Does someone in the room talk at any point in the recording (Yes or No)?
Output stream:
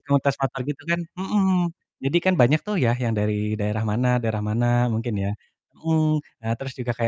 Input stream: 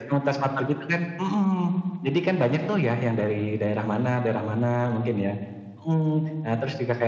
No